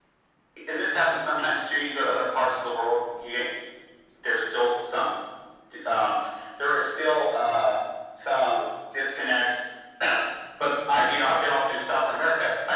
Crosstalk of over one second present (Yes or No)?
No